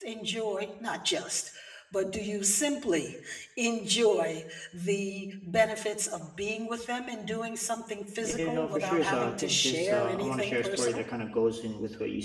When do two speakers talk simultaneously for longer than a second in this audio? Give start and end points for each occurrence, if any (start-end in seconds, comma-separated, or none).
8.2-11.0